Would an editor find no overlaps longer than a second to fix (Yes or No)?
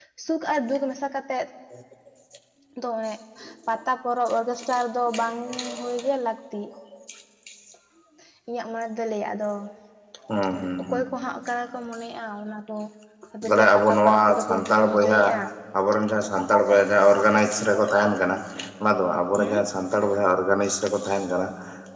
No